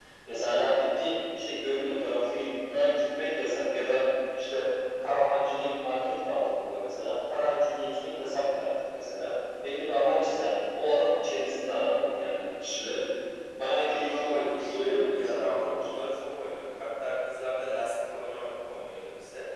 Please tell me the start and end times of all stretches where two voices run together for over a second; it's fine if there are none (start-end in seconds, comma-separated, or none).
13.9-15.7